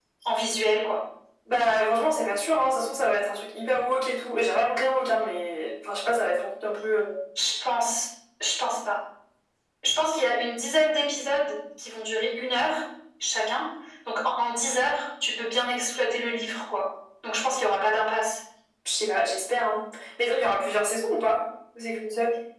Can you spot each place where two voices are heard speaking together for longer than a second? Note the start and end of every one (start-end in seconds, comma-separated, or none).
none